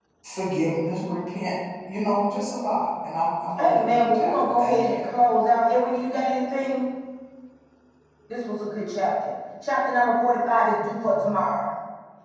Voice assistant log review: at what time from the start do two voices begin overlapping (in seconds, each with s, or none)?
3.6 s